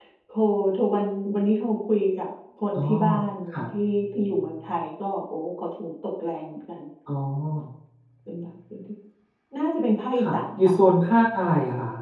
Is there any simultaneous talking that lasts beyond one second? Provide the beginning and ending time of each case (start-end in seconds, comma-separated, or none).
none